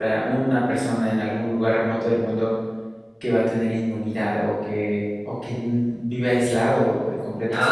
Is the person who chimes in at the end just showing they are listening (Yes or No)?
No